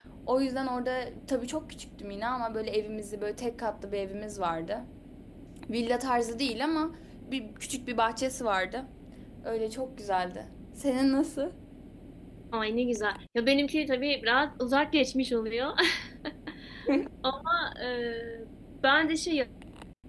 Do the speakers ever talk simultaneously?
No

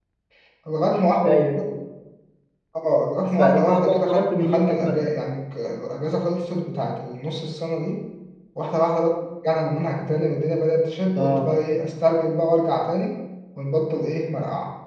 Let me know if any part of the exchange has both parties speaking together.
Yes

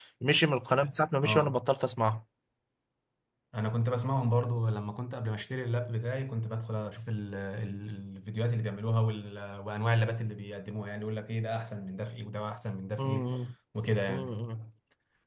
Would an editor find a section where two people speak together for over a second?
No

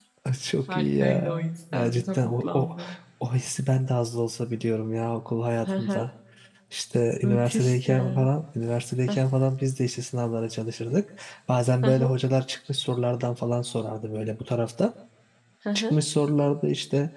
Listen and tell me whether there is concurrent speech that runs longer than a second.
Yes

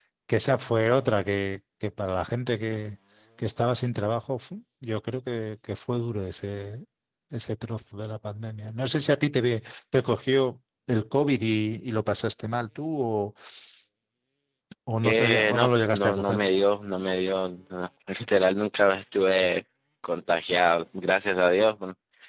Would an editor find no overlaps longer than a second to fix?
No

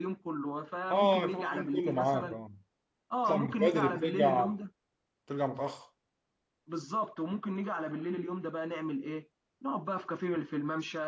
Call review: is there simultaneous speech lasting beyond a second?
Yes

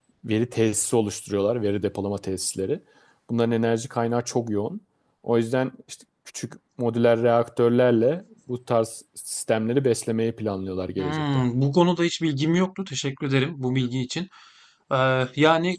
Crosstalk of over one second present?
No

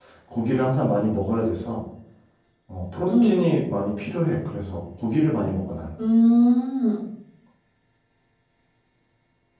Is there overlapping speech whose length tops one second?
No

